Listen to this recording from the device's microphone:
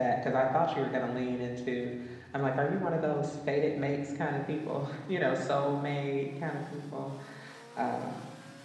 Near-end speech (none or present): none